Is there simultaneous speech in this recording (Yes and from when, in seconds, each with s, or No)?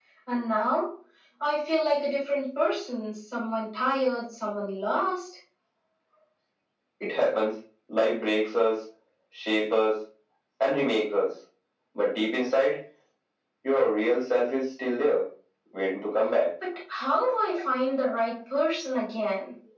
No